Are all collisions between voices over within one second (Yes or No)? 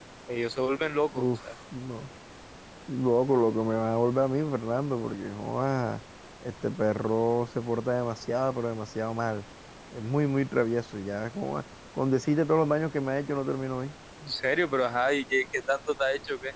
Yes